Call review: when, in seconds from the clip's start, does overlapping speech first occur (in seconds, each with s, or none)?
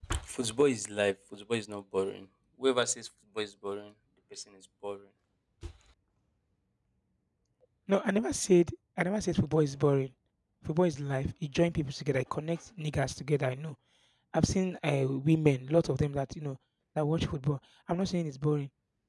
none